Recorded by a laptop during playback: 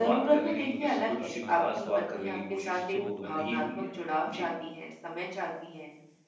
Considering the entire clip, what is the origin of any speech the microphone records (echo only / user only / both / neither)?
both